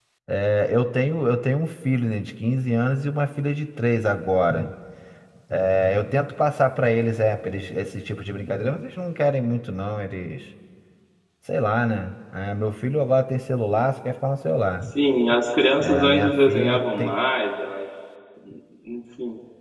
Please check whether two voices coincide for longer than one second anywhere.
Yes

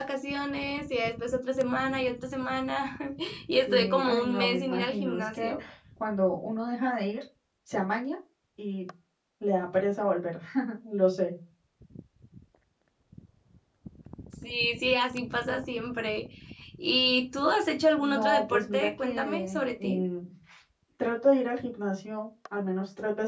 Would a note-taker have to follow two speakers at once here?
Yes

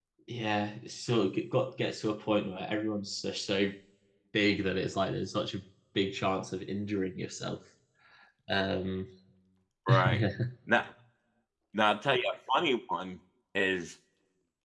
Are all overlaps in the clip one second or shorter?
Yes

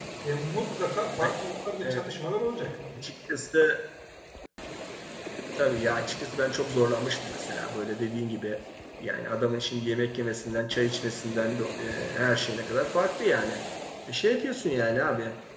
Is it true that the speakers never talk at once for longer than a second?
Yes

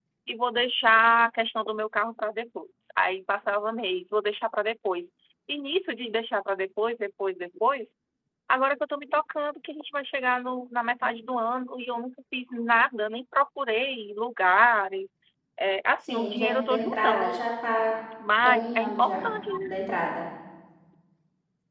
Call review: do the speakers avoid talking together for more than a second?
No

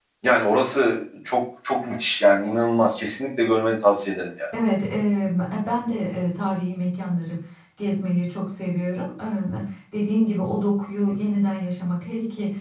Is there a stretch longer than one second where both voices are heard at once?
No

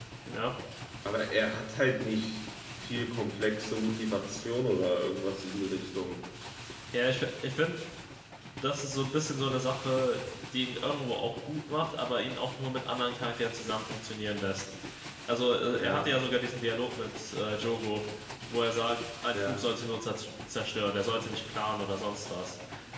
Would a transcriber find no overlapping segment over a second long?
Yes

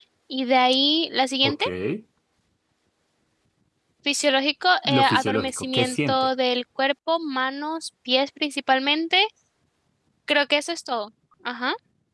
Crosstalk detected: Yes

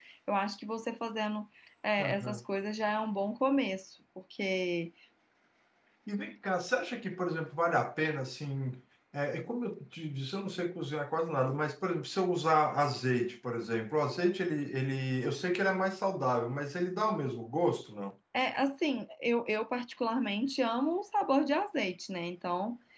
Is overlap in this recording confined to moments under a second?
Yes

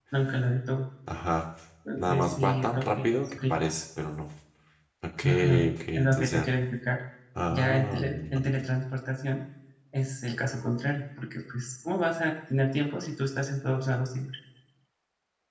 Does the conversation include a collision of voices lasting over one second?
Yes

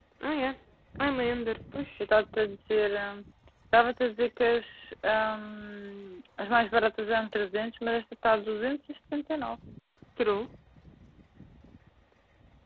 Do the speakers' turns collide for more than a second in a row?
No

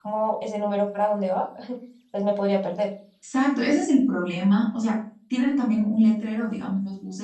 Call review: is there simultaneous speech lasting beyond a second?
No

